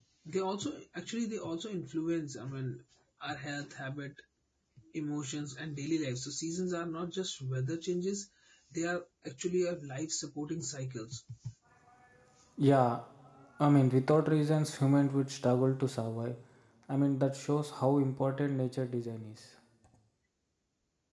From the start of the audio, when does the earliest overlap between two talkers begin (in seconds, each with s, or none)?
none